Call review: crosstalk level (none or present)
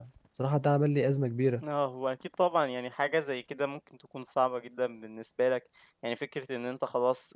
none